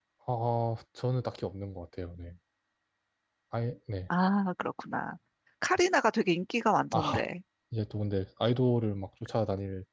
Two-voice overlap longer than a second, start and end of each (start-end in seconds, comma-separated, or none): none